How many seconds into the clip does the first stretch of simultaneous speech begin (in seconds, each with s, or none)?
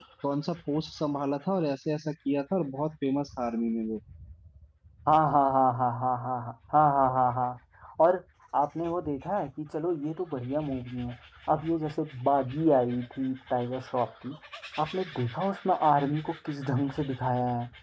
none